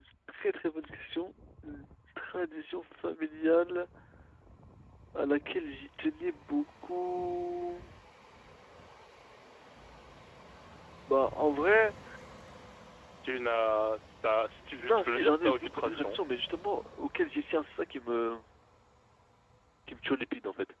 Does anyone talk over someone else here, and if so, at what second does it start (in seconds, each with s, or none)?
14.8 s